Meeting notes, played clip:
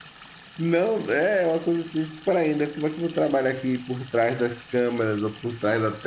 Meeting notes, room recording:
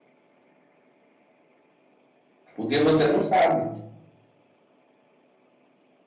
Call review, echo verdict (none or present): none